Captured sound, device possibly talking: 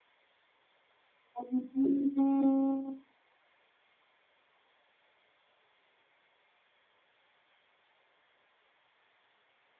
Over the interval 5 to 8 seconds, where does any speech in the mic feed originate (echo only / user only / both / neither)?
neither